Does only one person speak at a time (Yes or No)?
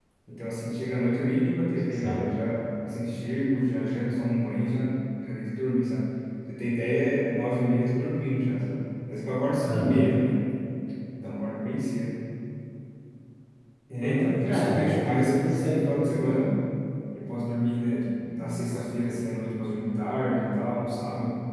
No